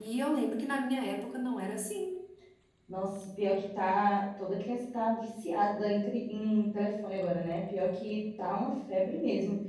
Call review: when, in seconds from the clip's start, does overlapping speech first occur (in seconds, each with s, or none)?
none